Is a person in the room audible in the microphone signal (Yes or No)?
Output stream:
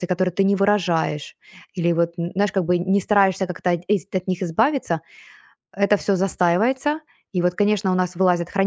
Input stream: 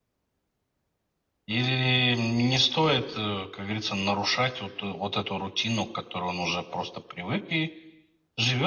Yes